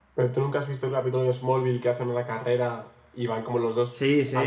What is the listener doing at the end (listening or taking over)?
taking over